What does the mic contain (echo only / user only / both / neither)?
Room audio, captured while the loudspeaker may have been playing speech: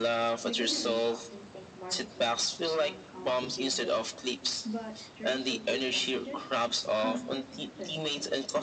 both